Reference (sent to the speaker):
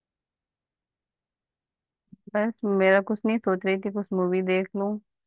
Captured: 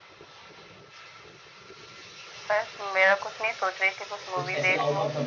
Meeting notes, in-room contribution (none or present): present